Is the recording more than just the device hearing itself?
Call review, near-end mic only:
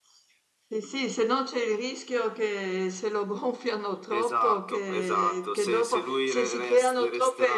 No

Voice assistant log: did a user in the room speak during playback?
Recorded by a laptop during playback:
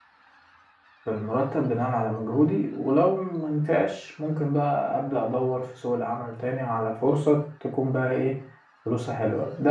Yes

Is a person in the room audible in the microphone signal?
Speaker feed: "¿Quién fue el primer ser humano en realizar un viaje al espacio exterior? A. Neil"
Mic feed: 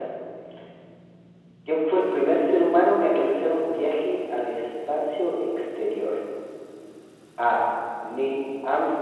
No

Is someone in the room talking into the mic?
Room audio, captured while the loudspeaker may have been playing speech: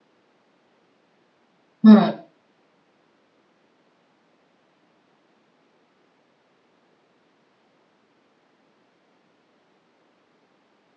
Yes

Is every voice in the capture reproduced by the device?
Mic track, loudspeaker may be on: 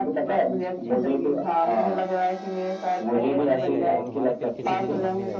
No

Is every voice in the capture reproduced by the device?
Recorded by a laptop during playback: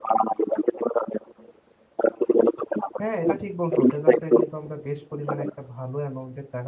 No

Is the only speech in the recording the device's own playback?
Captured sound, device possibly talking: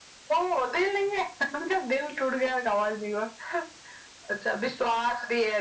Yes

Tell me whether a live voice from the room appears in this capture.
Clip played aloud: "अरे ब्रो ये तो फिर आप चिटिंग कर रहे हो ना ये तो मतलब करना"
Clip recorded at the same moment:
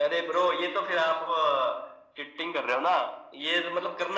No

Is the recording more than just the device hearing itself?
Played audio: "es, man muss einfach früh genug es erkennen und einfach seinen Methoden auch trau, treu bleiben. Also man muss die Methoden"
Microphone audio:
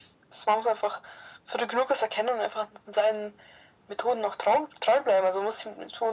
No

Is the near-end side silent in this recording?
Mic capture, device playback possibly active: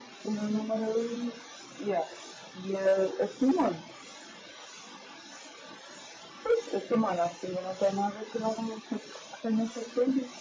Yes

